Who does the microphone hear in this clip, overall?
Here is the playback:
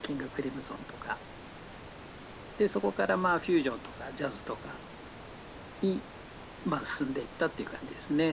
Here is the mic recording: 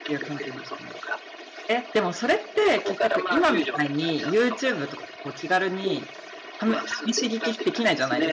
both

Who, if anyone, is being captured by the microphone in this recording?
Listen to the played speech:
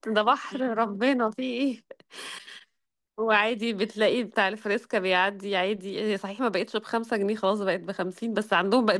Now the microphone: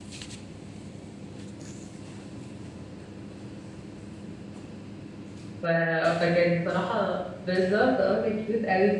user only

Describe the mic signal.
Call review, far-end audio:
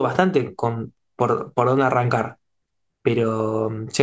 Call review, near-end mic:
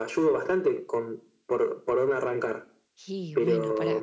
both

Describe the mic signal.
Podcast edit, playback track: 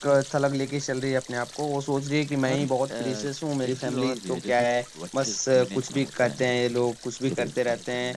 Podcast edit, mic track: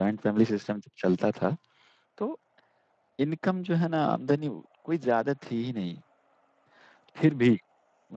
user only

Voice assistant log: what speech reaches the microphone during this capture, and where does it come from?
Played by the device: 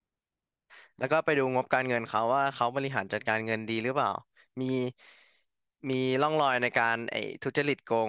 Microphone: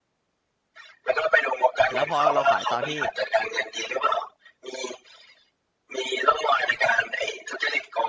both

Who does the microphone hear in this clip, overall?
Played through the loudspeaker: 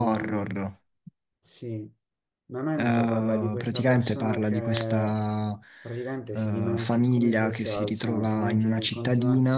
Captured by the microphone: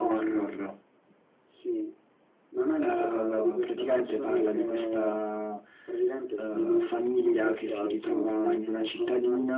echo only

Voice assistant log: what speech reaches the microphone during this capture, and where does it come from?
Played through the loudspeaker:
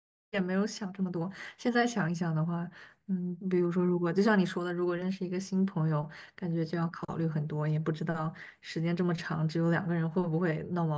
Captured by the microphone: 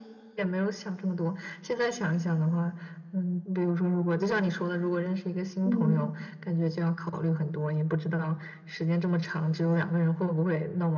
both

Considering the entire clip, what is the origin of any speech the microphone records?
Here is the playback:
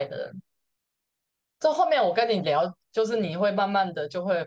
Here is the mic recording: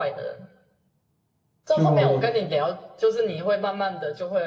both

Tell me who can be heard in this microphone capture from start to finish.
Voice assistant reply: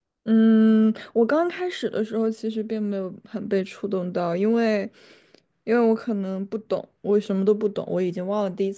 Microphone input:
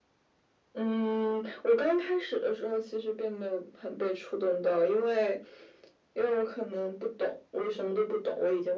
echo only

